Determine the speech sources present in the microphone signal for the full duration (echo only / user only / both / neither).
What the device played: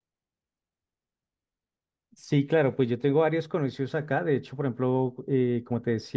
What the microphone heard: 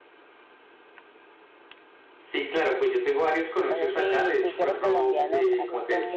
both